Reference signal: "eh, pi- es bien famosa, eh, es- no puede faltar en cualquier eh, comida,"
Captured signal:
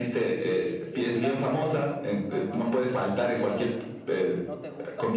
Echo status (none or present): present